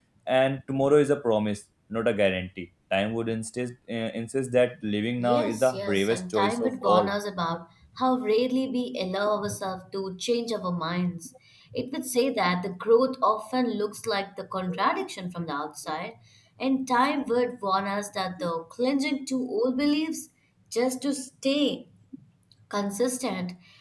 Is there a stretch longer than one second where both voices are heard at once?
Yes, from 5.2 s

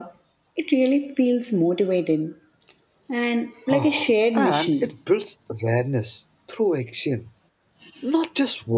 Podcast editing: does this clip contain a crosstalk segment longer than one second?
Yes, from 3.7 s

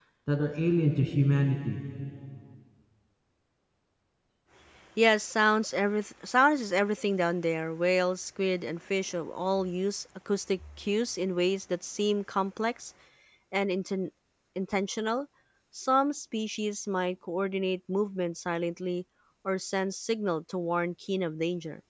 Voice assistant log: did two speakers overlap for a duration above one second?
No

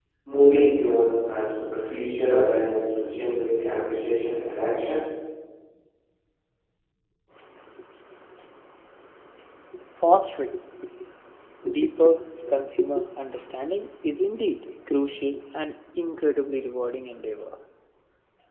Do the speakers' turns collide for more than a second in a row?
No

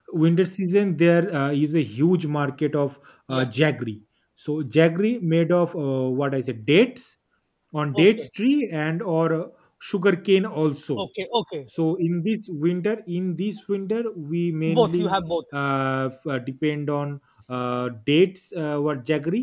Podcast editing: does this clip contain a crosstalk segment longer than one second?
No

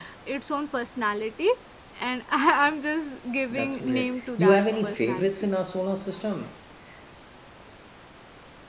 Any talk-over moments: Yes, from 3.5 s

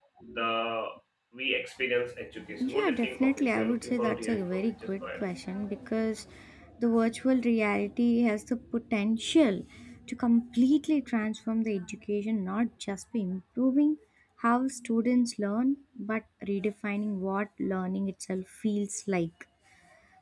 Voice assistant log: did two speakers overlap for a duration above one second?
Yes, from 2.6 s

